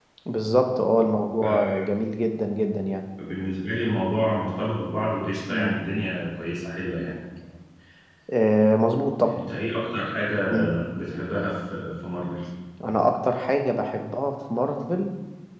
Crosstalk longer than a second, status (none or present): none